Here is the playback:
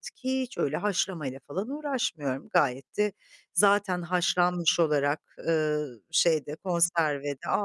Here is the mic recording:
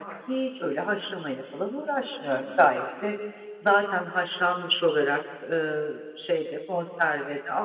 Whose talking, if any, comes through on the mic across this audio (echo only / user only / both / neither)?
echo only